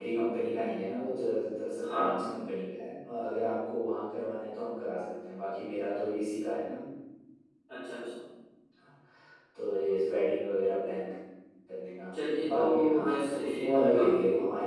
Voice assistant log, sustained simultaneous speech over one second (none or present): present